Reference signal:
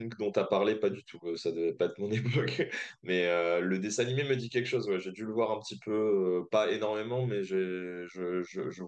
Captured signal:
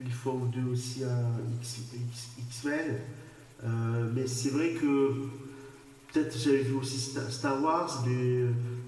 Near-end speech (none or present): present